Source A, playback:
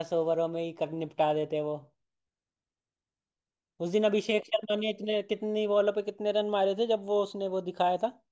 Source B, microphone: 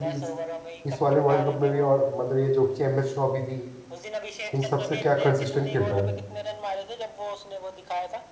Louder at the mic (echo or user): user